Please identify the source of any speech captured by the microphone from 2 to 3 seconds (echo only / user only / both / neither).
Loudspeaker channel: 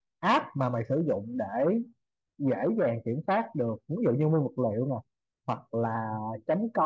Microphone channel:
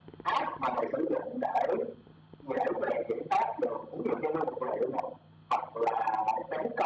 echo only